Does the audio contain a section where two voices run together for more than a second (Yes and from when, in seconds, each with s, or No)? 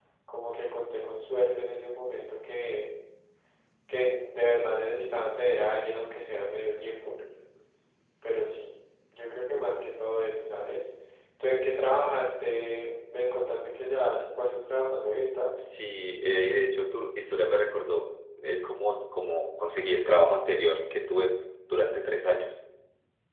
No